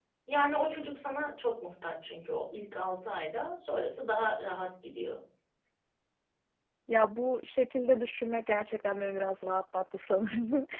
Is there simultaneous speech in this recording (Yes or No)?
No